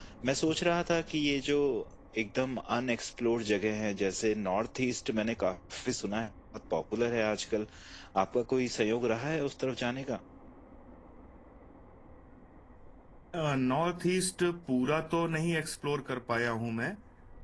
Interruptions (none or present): none